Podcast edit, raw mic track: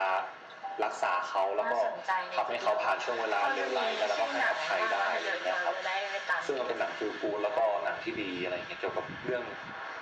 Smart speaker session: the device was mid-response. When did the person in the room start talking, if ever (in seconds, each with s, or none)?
none